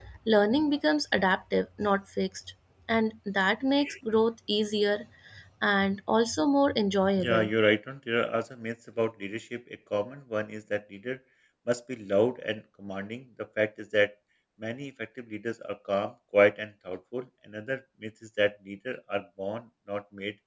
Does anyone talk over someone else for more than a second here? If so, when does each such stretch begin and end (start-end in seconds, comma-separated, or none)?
none